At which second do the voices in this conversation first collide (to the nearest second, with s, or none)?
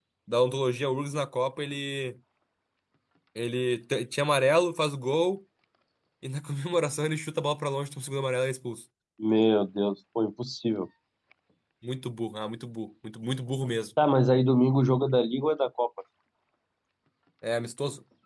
none